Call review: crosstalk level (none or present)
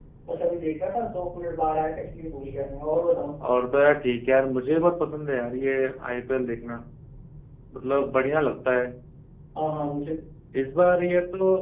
none